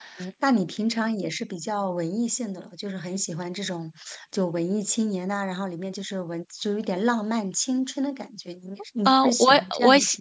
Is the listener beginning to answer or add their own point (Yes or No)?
Yes